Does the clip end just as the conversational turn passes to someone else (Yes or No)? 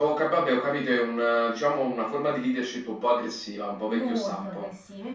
Yes